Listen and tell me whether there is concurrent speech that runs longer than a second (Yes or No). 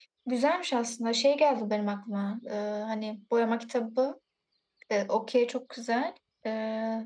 No